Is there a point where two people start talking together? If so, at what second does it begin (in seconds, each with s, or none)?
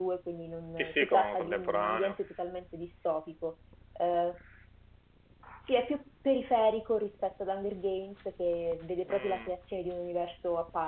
0.8 s